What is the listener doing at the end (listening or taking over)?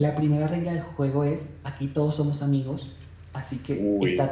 listening